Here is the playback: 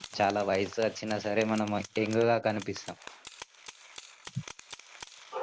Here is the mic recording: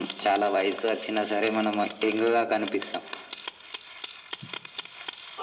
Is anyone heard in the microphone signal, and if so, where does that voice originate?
echo only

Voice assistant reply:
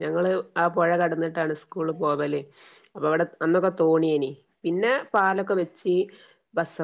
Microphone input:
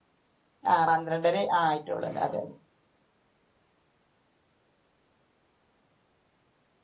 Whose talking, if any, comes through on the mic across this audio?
user only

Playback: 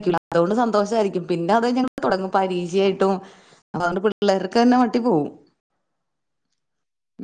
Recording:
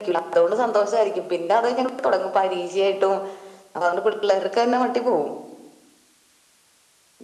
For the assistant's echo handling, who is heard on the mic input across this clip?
echo only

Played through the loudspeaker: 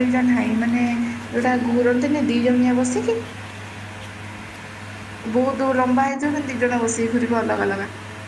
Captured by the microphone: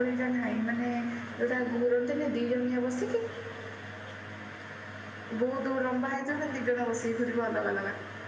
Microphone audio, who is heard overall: echo only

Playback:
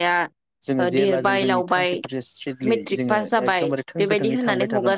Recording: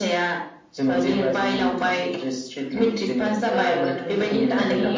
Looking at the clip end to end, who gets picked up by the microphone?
both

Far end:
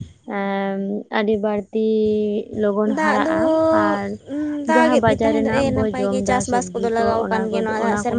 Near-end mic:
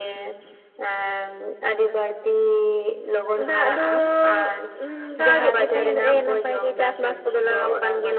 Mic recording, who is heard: both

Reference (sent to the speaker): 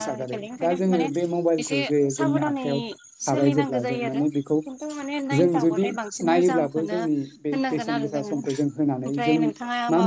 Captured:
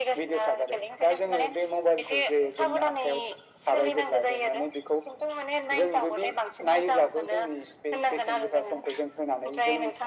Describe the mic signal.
echo only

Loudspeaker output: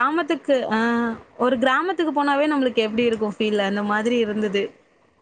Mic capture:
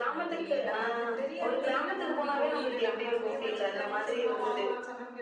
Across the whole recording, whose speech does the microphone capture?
both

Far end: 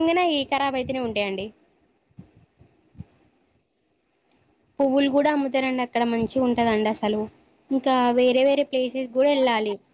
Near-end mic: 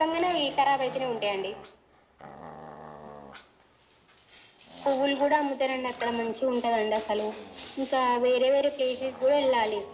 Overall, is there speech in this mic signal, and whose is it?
echo only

